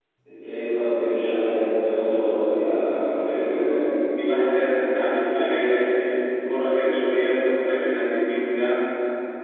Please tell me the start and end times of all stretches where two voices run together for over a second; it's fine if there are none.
2.4-3.8

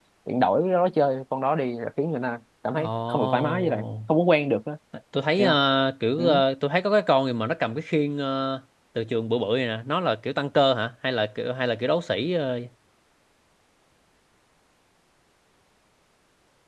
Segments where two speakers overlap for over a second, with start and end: 2.8-4.1

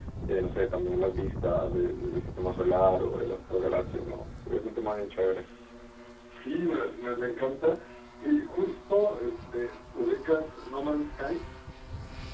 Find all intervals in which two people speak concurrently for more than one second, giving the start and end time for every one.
none

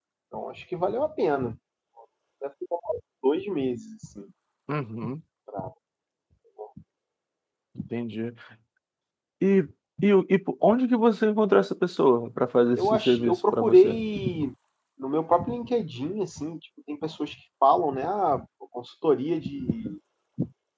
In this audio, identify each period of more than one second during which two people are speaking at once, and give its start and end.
12.7-14.0

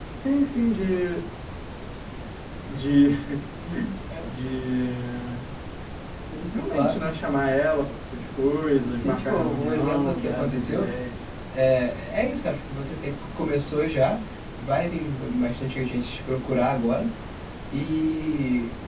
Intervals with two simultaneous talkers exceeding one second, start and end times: 8.9-10.9

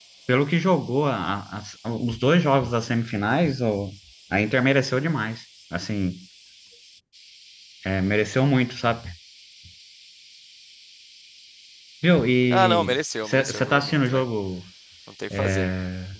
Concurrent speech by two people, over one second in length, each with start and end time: 12.5-14.2

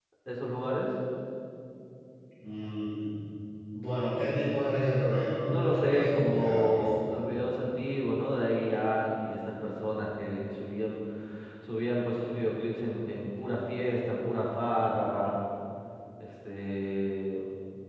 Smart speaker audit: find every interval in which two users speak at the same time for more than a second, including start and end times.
5.3-7.0

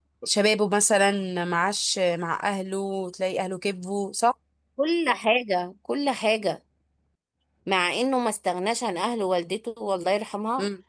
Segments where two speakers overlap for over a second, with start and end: none

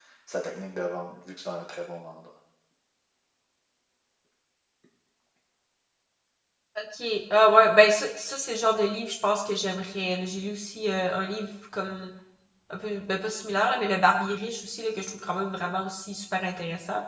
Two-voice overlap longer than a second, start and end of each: none

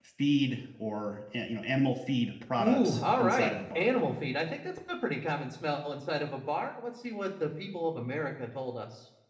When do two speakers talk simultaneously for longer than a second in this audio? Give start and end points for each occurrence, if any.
2.6-3.9

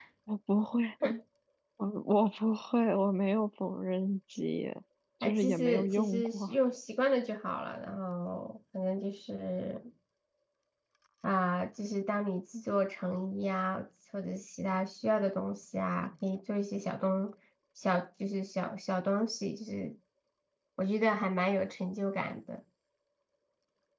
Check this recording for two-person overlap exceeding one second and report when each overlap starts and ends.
5.2-6.5

